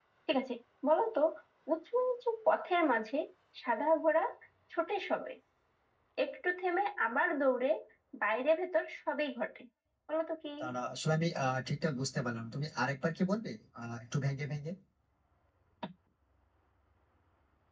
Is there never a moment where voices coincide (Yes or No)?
Yes